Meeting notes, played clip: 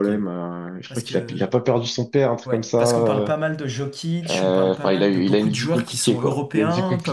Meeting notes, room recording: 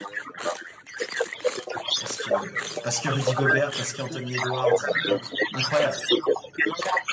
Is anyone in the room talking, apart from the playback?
Yes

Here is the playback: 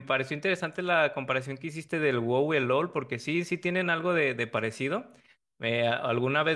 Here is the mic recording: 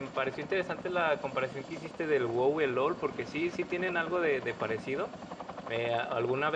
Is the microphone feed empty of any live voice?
Yes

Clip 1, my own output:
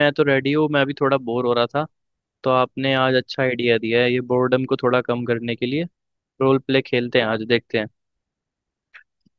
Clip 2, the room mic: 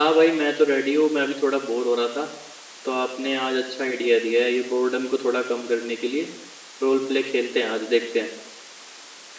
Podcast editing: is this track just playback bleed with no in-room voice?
Yes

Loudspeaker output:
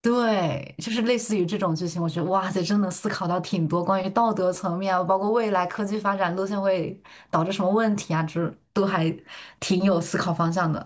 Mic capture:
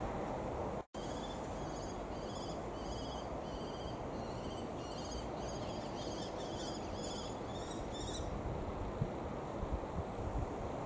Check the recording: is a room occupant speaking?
No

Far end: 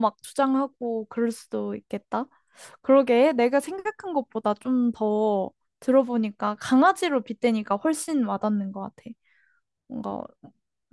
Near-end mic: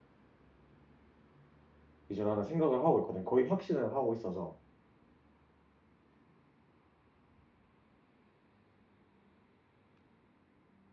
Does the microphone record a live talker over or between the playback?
Yes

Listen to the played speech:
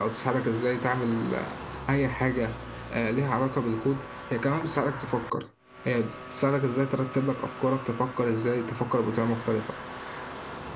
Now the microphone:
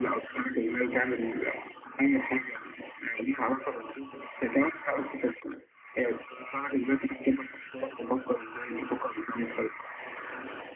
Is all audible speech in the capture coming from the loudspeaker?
Yes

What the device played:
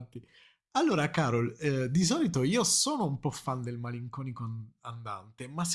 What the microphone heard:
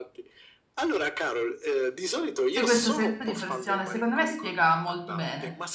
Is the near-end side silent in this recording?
No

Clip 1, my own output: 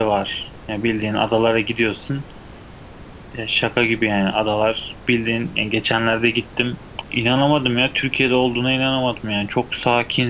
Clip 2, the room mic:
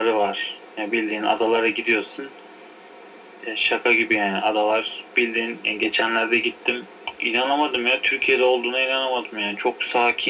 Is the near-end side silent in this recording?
Yes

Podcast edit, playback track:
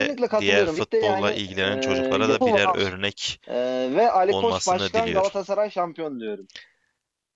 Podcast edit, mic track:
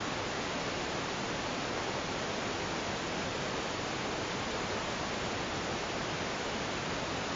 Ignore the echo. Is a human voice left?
No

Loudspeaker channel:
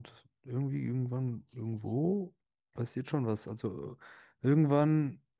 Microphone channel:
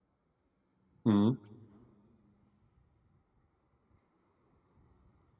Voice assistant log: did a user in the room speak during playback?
Yes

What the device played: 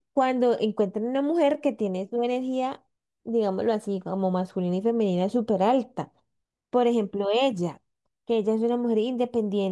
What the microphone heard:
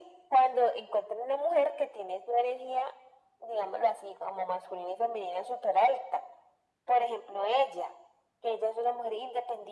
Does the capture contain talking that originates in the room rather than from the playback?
No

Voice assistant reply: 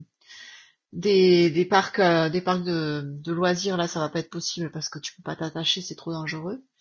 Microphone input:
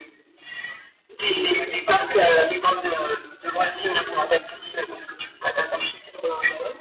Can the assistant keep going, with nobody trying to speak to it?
Yes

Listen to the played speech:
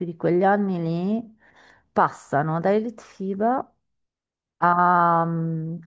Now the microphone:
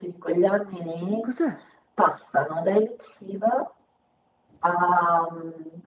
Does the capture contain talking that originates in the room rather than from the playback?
Yes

